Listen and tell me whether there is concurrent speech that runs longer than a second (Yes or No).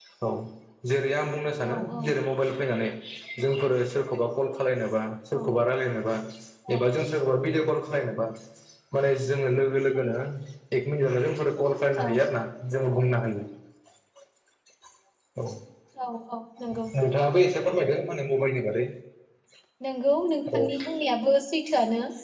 No